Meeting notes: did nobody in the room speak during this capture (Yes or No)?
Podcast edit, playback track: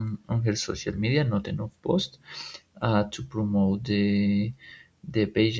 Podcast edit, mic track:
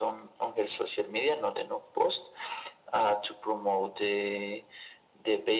Yes